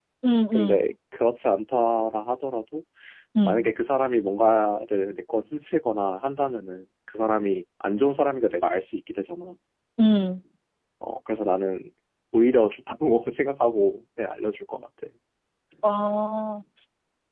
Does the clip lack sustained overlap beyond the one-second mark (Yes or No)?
Yes